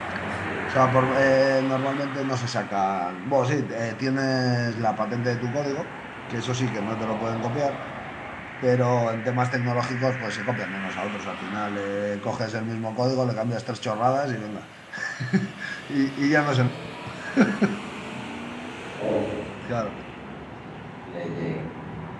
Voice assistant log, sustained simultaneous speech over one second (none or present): none